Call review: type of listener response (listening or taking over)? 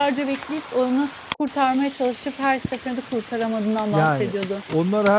taking over